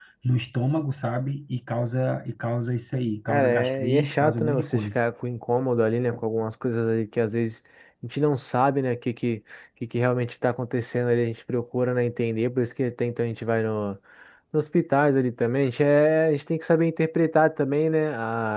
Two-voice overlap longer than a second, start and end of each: 3.3-5.0

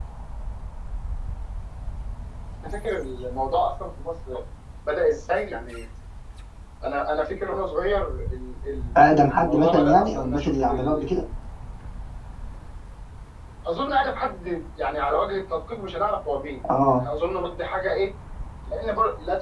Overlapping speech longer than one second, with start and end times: 9.1-11.0

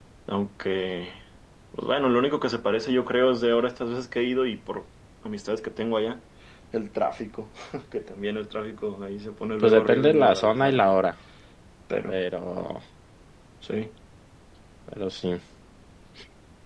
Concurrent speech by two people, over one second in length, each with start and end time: 9.6-10.8

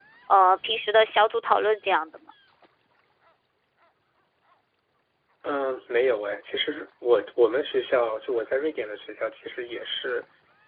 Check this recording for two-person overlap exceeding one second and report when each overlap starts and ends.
none

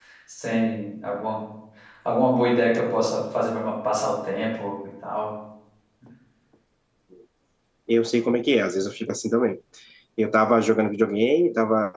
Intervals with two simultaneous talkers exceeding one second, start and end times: none

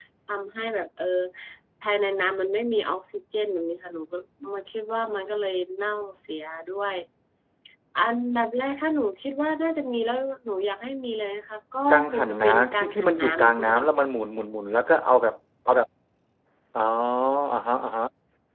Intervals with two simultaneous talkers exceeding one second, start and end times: 11.9-13.8

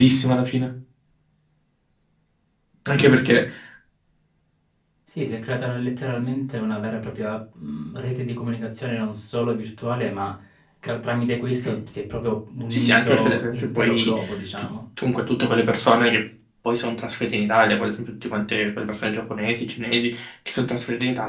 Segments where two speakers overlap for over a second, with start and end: 12.7-14.2

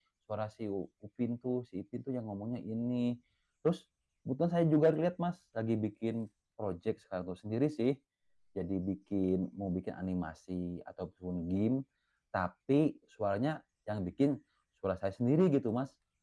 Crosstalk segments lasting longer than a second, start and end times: none

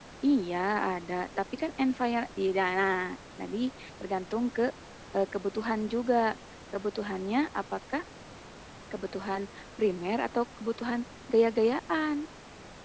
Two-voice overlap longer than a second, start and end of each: none

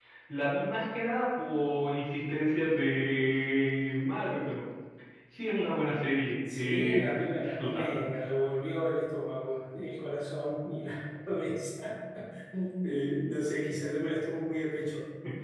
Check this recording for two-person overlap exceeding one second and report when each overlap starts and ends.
6.5-8.0

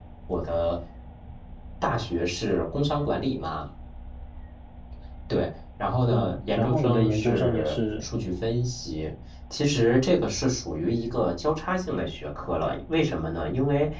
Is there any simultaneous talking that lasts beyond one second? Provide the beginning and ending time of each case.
6.1-8.1

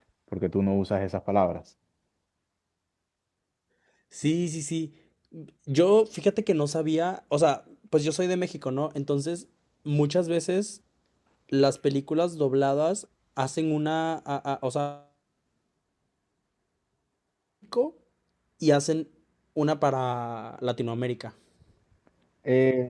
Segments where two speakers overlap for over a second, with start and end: none

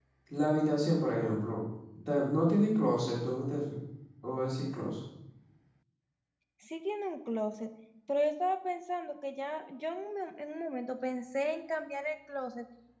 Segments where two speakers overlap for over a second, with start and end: none

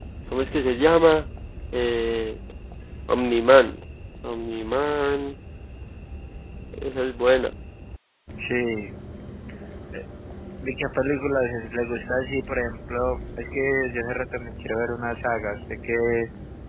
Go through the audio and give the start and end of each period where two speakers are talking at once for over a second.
none

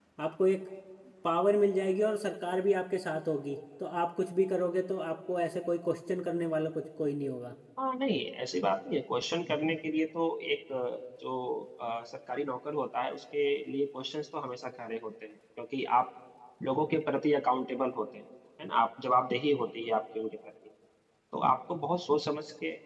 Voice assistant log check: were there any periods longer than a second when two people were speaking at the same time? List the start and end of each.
none

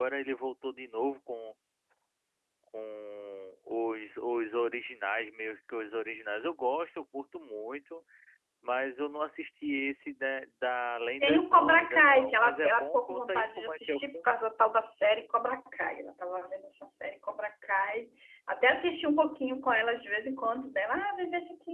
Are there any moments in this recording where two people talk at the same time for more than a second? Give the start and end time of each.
11.2-14.3

